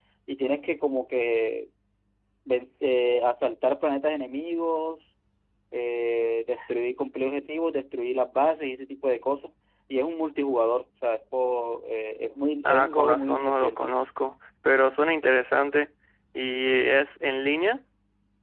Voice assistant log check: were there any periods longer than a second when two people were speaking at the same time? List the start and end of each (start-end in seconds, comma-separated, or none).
12.6-13.9